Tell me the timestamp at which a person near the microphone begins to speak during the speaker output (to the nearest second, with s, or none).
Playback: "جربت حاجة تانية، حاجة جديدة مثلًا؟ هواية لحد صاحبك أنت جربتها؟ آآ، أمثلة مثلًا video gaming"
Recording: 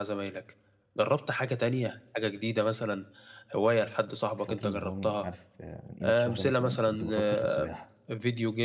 4 s